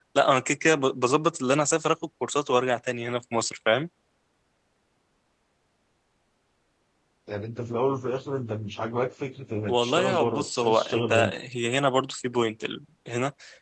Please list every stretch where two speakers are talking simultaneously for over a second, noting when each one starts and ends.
9.7-11.3

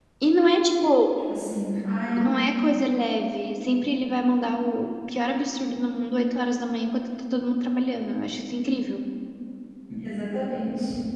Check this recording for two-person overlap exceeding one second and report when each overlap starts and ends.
none

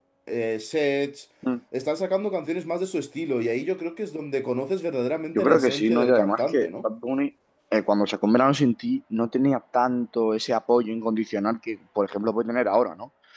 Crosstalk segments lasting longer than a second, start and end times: 5.4-6.8

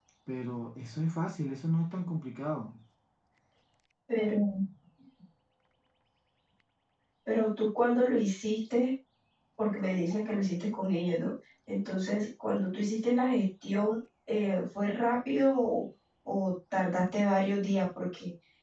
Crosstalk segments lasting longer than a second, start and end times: none

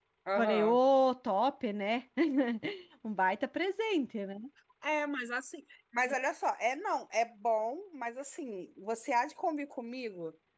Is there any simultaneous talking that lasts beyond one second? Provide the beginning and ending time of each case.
none

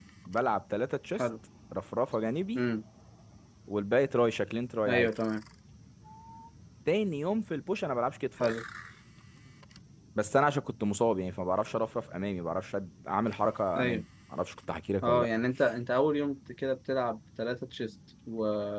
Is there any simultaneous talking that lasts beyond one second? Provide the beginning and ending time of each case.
none

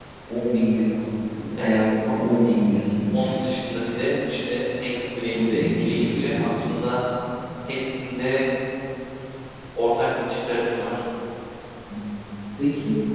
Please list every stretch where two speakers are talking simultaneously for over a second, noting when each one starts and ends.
5.3-6.6

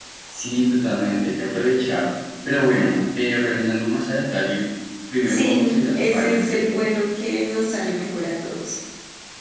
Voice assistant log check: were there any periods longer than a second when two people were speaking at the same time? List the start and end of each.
5.2-6.8

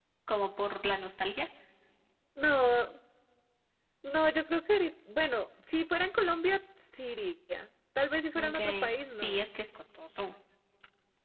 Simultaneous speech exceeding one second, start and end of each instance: none

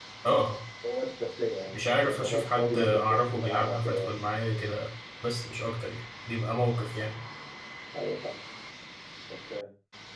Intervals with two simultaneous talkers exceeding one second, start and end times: 1.7-4.1

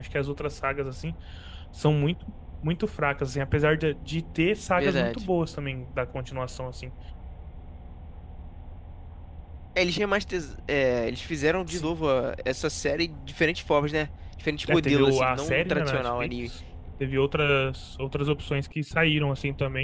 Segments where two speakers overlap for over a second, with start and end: 14.7-16.5

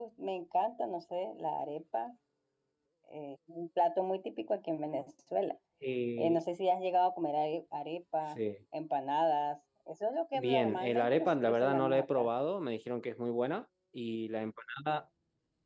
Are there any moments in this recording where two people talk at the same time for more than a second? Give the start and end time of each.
10.3-12.3

